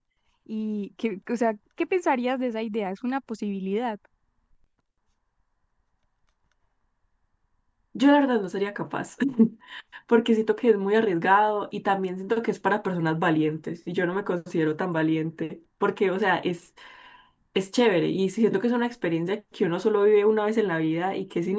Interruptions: none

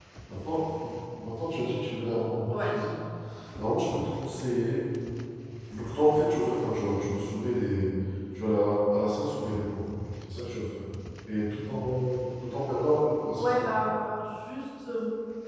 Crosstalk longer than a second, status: none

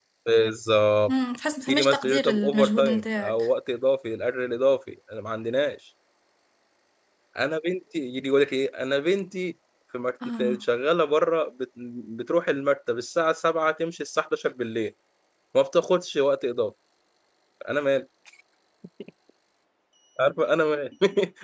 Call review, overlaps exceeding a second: present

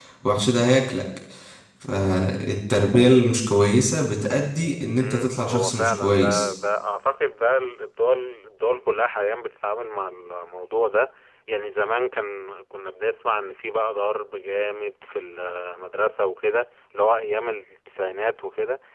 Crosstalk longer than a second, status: present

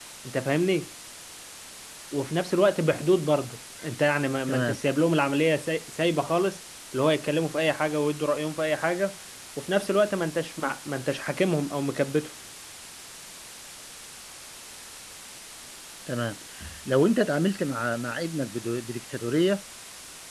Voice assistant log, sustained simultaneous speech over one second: none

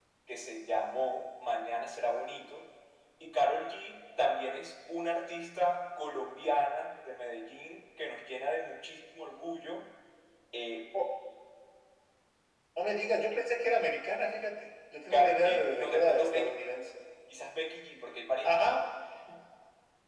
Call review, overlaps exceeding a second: present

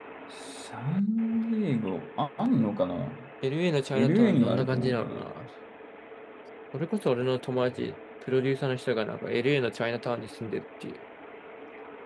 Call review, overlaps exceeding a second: present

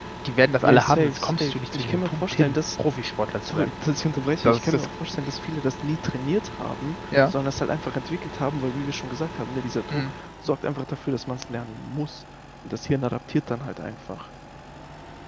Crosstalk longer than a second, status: present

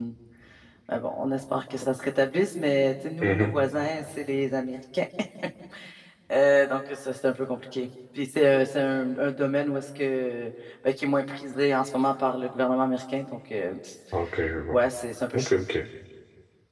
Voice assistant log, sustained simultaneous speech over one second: none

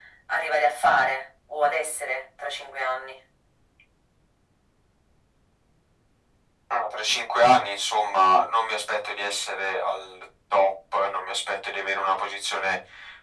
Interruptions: none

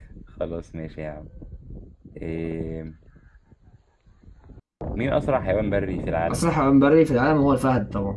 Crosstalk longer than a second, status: none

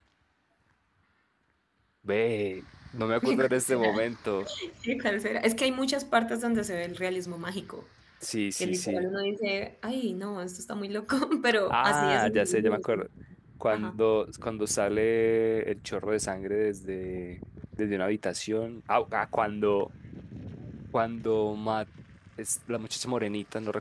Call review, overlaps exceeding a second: present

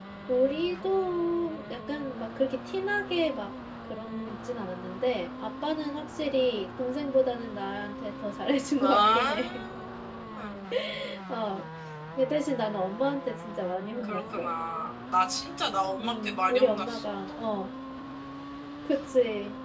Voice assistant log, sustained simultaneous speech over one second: present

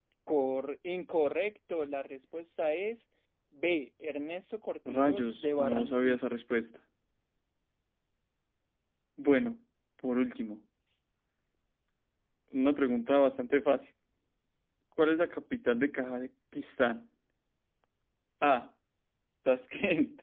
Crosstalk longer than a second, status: present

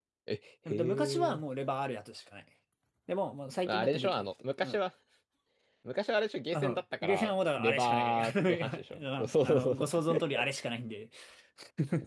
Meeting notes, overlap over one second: present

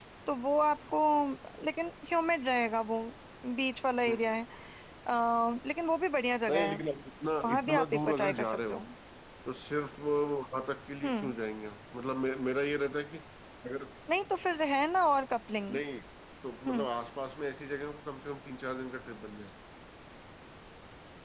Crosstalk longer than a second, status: present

